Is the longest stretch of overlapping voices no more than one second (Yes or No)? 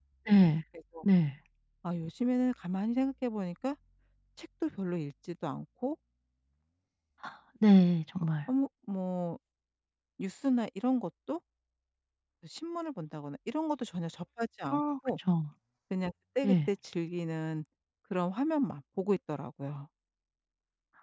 Yes